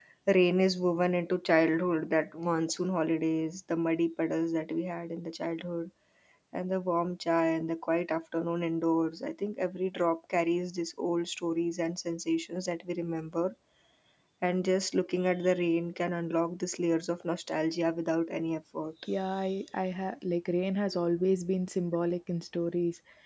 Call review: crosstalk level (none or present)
none